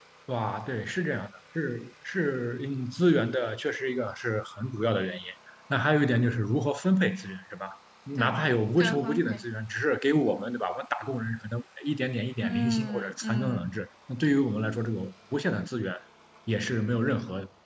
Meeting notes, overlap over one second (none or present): present